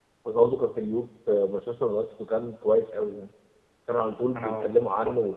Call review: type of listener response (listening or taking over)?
listening